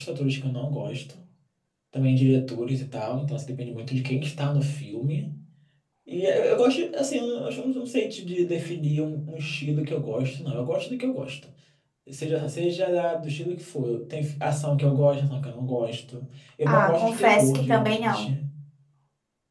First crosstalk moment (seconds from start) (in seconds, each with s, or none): 16.7 s